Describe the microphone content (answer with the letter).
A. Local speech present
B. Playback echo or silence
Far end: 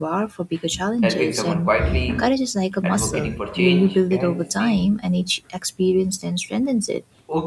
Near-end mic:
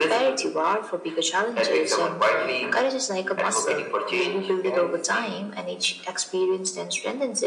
B